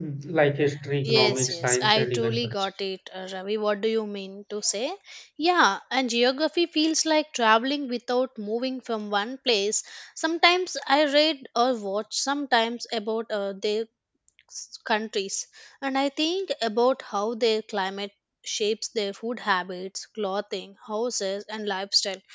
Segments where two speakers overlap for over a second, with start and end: 1.1-2.7

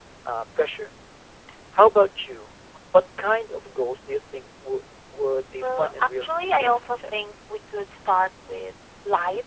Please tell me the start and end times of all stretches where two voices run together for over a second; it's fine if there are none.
5.6-7.0

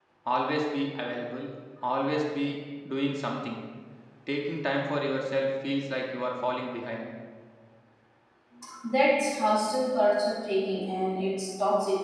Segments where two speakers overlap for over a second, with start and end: none

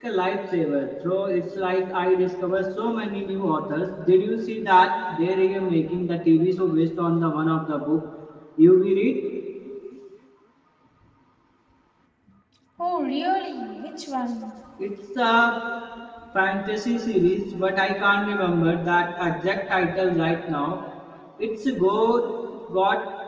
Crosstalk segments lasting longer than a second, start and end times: none

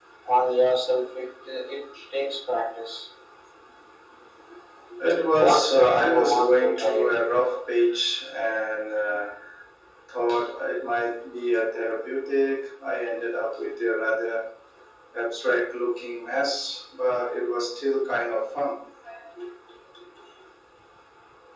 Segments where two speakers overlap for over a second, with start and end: 5.3-7.1

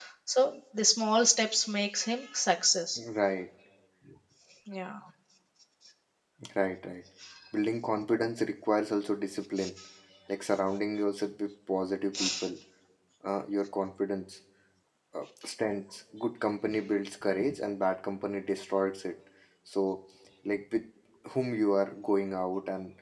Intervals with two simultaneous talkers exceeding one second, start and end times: none

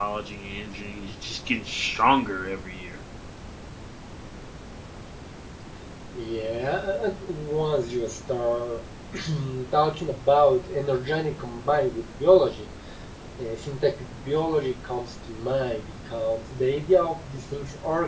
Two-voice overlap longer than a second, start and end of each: none

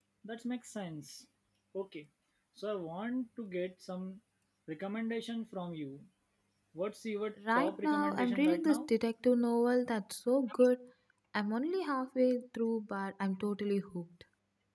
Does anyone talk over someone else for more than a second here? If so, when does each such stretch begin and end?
7.5-8.8

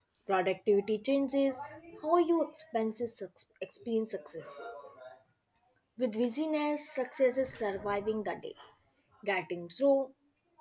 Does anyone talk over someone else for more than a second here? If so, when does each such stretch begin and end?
none

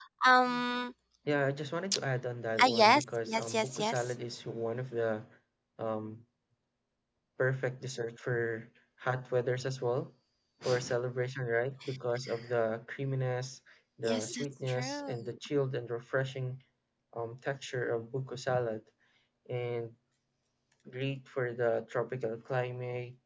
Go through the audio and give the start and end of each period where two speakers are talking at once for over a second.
2.6-4.0, 14.0-15.4

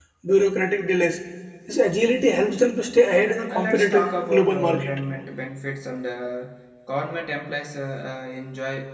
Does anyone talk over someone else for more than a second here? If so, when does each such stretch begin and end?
3.5-4.9

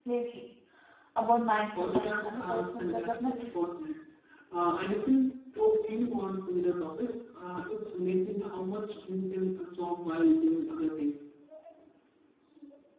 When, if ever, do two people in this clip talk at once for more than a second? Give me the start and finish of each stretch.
1.8-3.5

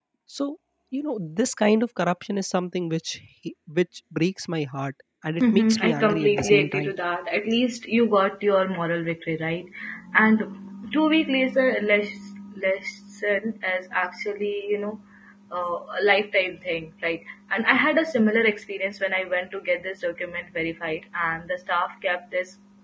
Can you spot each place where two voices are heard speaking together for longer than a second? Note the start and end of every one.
5.4-6.9

